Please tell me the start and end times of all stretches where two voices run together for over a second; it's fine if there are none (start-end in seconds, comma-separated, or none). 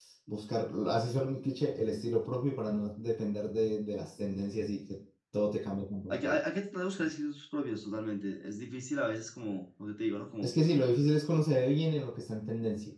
none